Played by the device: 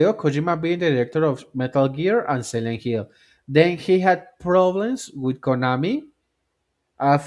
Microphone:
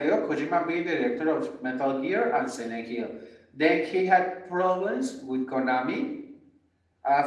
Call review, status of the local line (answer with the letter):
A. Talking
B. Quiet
B